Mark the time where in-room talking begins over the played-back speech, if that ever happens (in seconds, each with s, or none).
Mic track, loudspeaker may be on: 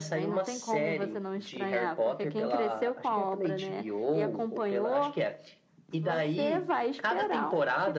none